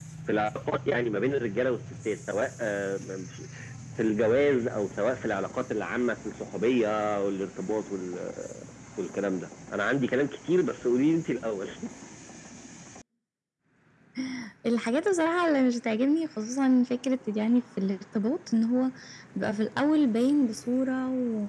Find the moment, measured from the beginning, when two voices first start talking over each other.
none

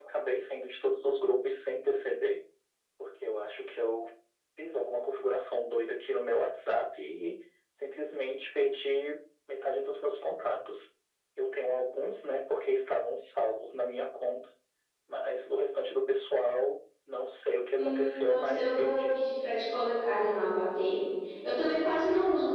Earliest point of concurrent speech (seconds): 18 s

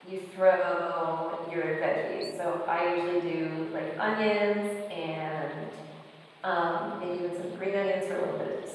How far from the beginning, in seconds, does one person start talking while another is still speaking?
none

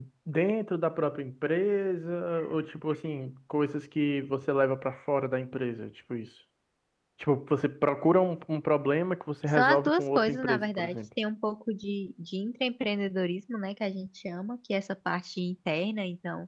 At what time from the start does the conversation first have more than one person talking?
10 s

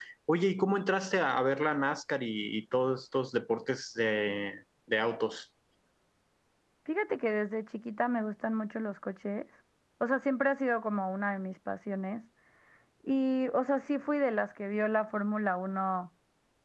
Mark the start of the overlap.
none

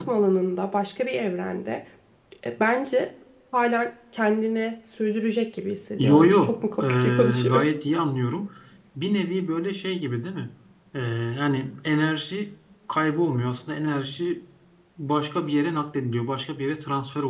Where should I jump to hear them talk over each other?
6 s

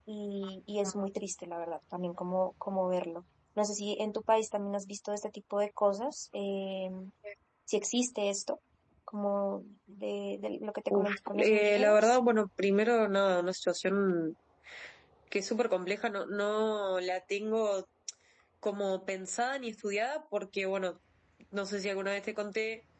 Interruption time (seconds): 11 s

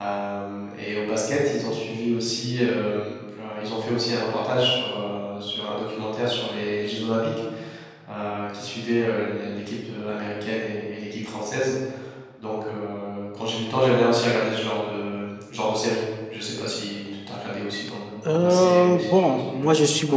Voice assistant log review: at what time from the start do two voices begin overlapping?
18 s

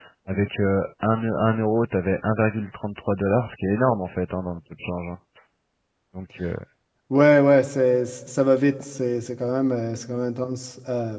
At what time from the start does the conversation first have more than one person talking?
none

